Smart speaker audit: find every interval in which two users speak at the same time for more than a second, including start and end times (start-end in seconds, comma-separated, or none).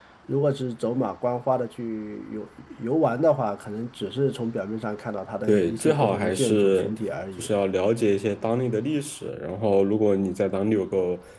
5.5-6.9